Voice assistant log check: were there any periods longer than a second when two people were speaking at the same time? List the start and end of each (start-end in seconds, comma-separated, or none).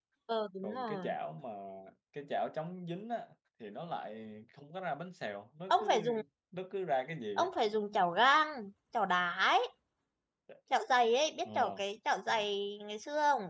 none